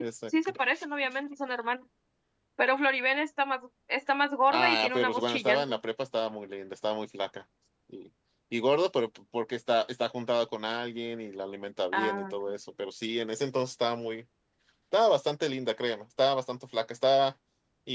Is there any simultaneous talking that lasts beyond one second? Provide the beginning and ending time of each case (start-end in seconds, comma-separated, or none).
4.5-5.8